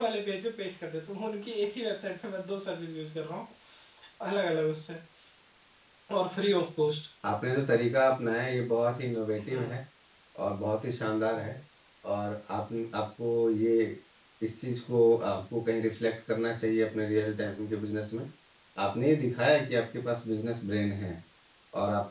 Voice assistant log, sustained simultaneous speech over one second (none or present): none